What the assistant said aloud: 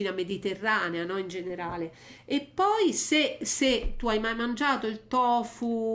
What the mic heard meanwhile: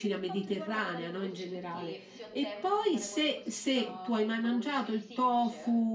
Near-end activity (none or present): present